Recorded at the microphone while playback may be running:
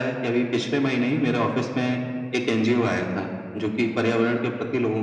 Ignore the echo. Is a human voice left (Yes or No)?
No